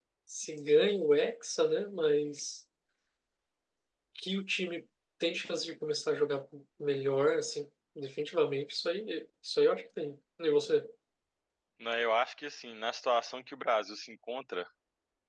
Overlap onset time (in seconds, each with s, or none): none